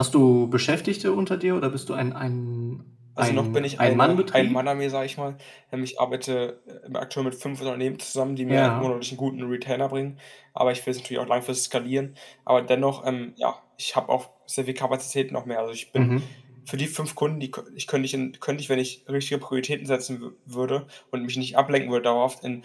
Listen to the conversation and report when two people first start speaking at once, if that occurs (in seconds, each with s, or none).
3.2 s